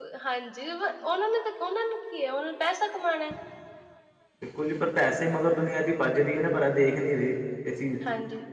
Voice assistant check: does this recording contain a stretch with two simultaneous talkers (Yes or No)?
No